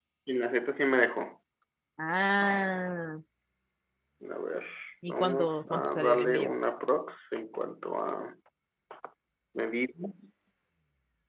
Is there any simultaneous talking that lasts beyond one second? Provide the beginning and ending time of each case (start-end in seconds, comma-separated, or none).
5.1-6.5